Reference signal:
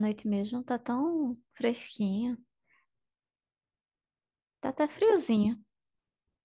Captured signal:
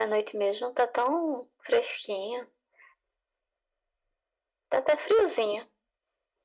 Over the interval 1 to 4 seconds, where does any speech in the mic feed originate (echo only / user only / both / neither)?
echo only